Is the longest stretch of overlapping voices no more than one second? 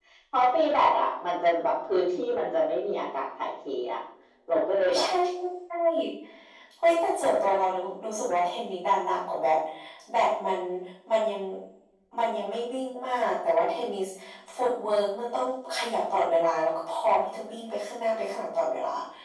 Yes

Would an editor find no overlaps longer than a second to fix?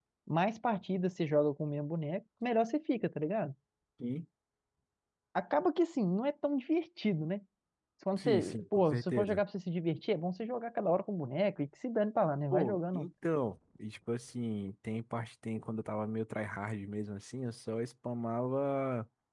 No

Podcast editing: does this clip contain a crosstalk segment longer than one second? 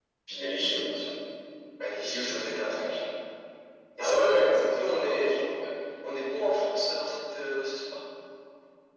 Yes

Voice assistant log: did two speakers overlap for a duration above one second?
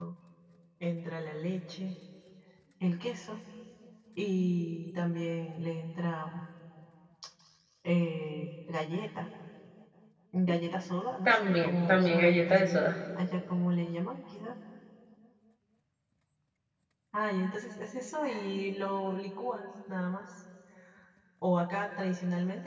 Yes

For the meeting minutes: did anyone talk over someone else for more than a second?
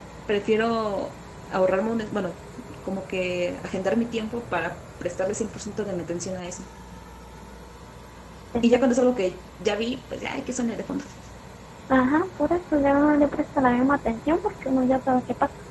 No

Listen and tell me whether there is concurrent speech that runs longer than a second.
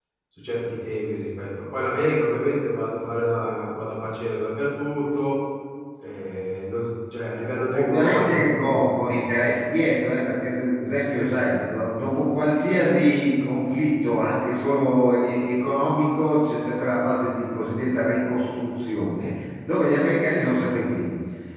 Yes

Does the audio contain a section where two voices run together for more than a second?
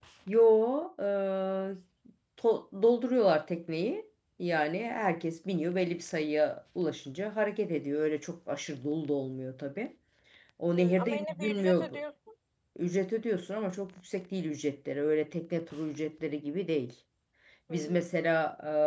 Yes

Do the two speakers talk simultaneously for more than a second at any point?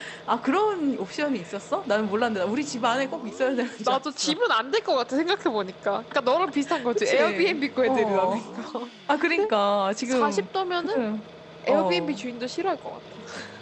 Yes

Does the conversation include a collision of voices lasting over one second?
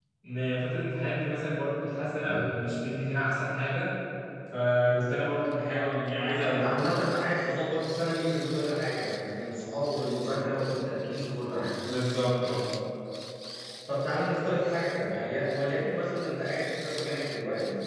No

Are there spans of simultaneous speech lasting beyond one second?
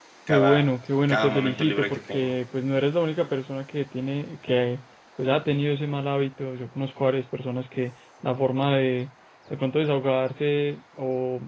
Yes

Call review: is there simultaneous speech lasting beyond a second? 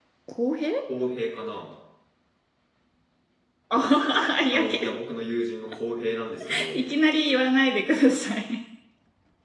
No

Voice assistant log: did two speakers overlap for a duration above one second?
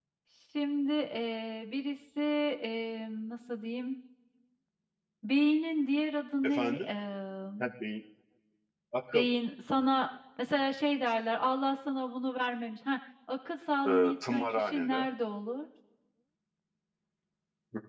Yes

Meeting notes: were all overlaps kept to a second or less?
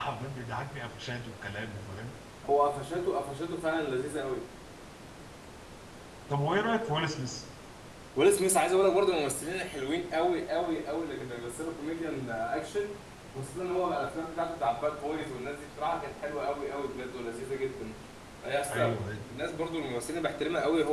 Yes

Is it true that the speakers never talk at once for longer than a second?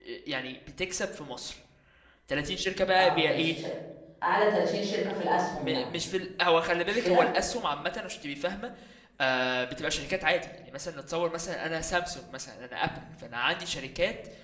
Yes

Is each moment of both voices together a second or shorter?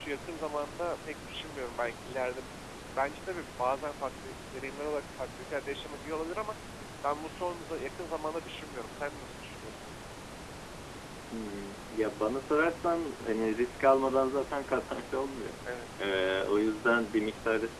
Yes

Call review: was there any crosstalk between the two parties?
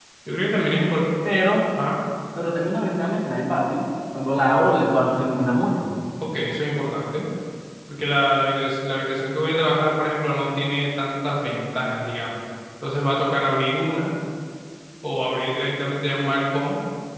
No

